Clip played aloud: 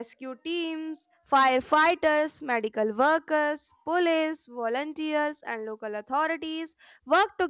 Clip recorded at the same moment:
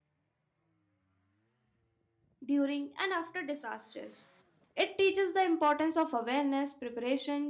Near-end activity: present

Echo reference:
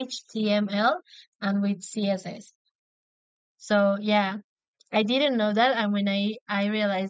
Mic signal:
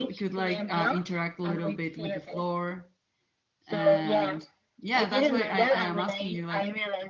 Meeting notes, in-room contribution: present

